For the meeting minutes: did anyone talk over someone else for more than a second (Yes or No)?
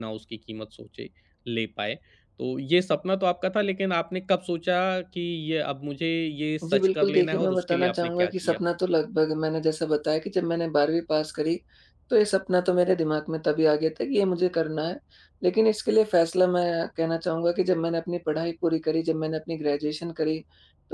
Yes